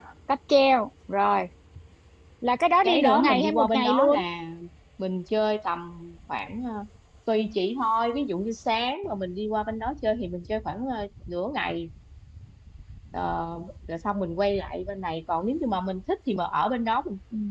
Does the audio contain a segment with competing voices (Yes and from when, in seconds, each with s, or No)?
Yes, from 2.8 s